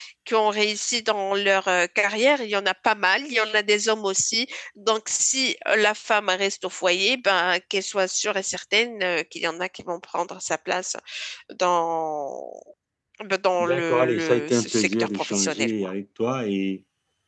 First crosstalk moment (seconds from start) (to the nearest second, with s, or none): 14 s